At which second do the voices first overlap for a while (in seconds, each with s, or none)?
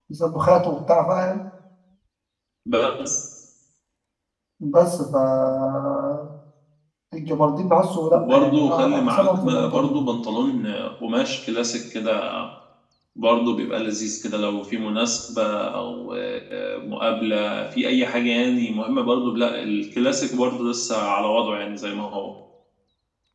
8.1 s